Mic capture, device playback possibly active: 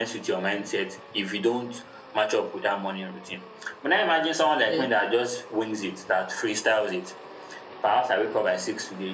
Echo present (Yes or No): Yes